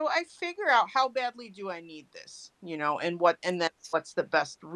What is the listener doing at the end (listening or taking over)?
listening